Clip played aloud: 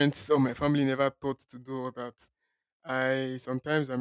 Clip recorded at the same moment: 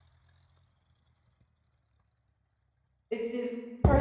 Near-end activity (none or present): present